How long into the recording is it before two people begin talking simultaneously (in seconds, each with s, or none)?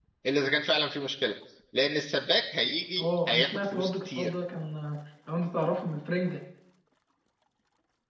3.0 s